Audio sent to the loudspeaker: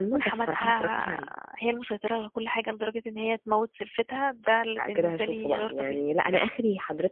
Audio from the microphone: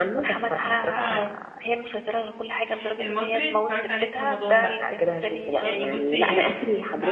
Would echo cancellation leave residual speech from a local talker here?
Yes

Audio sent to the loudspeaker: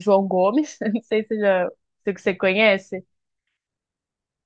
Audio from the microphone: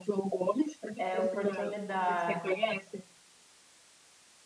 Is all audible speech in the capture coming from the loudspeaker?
No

